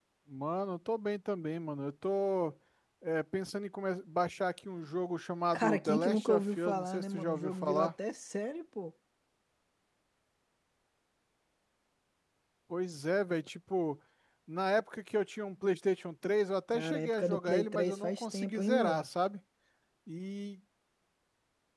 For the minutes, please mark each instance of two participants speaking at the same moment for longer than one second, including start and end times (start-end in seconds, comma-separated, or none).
5.5-7.9, 16.7-19.1